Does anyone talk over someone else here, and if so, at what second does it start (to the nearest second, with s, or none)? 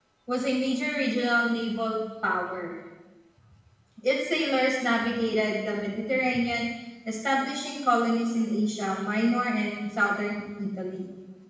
none